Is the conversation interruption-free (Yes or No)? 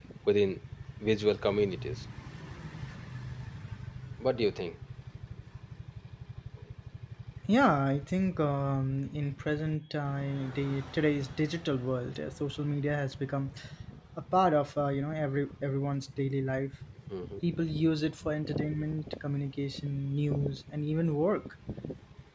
Yes